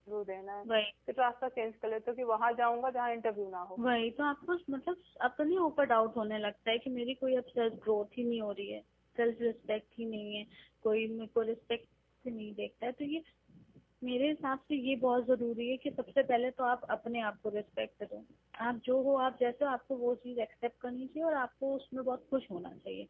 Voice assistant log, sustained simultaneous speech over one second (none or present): none